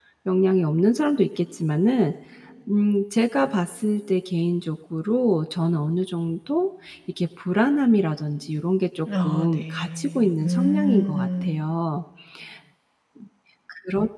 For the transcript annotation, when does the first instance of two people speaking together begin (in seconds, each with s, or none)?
9.1 s